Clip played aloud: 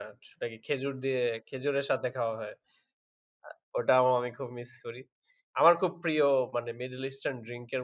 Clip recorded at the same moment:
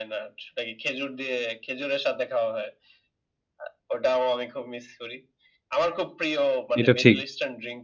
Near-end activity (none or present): present